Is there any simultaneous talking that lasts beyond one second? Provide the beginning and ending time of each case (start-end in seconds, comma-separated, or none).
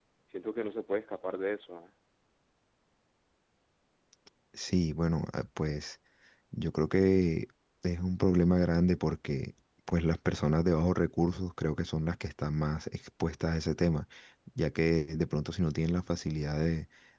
none